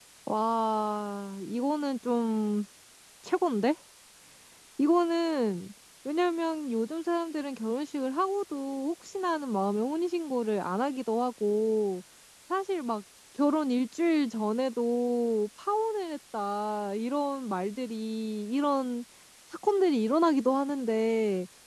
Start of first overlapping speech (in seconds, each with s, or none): none